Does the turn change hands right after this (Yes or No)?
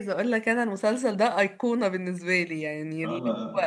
No